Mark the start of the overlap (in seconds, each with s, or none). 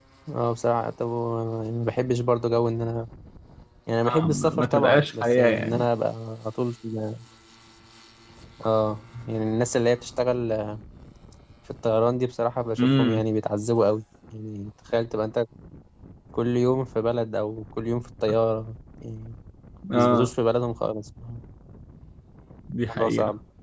4.1 s